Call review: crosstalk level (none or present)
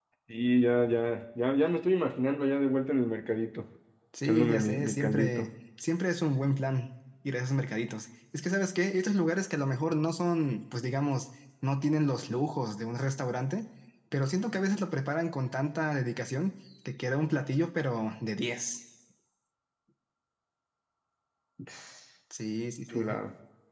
present